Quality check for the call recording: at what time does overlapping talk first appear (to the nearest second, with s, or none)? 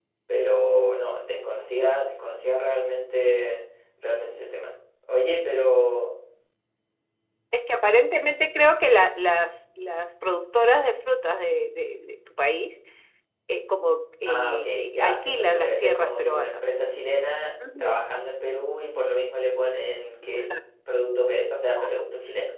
14 s